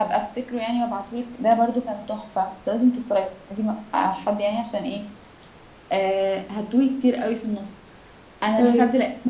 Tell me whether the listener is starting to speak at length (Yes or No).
No